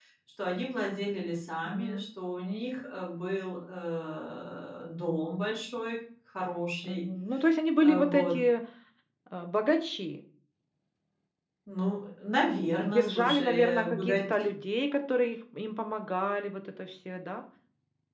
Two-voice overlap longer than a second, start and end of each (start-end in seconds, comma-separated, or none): 12.8-14.5